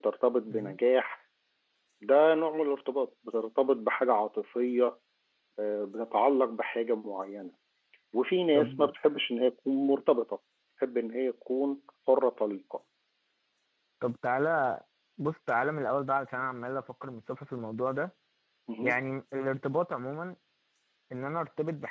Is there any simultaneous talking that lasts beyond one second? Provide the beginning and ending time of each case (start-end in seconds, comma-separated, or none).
none